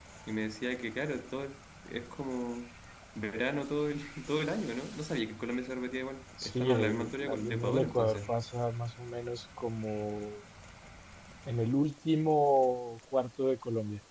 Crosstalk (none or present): present